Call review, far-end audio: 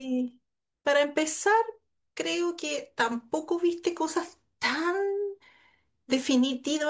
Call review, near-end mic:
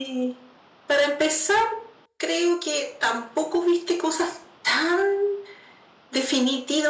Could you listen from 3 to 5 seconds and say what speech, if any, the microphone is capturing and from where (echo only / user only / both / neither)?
echo only